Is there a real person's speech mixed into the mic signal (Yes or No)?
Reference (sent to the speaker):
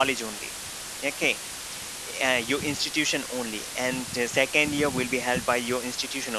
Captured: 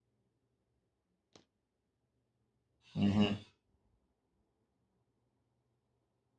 Yes